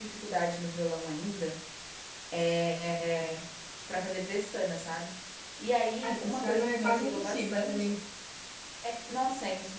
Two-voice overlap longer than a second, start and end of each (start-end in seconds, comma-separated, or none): 6.0-8.0